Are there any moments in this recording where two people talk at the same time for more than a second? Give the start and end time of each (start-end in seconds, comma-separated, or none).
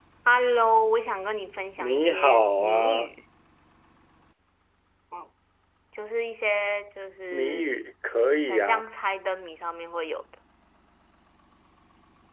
1.8-3.1